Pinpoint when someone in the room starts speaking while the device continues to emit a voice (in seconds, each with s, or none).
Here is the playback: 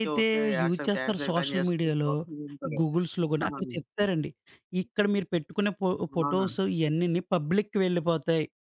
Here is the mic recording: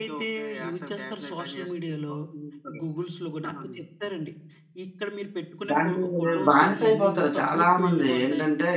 5.7 s